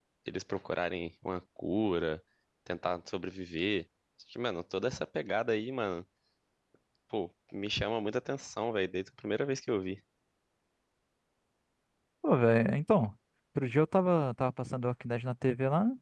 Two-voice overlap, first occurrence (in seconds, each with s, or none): none